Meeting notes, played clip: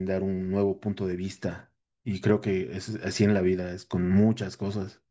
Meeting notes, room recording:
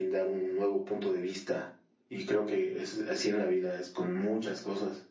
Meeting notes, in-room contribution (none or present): none